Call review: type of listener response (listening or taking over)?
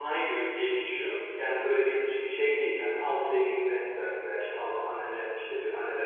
listening